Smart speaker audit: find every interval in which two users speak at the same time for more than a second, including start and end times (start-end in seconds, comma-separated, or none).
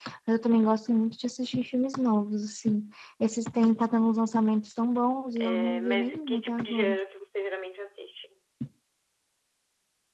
5.4-6.9